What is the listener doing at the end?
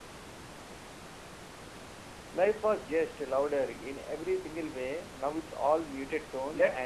taking over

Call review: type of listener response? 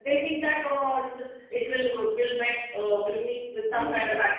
listening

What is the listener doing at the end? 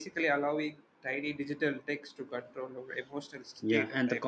taking over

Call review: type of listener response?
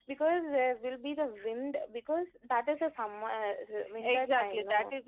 taking over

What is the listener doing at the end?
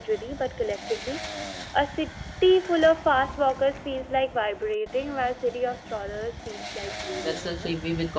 taking over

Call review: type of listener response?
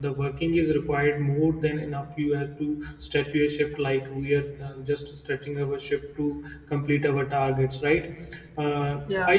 listening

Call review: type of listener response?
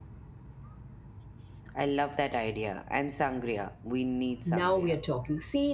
taking over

